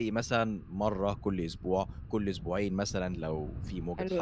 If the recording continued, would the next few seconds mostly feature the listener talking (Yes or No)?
Yes